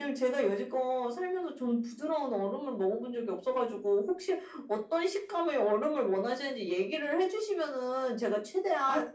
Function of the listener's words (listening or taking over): taking over